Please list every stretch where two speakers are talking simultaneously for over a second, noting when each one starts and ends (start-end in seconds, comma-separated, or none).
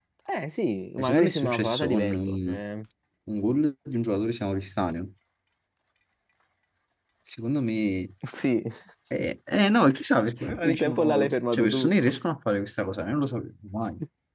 1.0-2.6, 10.6-11.9